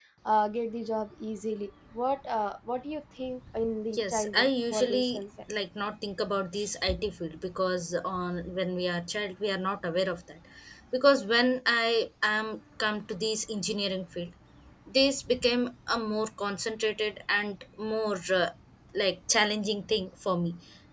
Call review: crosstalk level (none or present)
present